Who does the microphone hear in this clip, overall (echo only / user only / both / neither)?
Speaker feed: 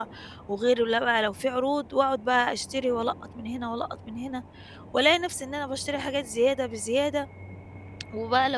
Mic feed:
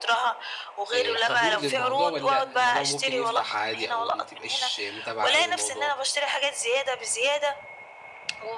both